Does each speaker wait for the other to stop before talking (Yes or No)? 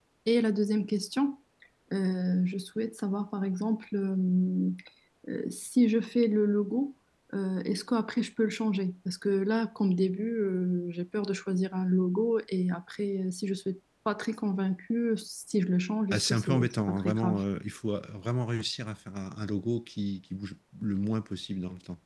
No